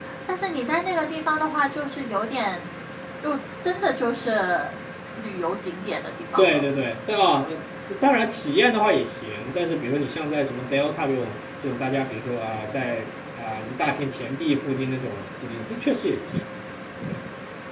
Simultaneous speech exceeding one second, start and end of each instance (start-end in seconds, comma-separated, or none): none